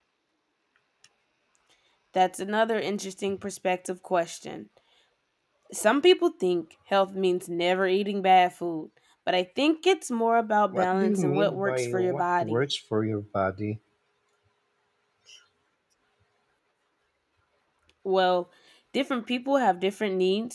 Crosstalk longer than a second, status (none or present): present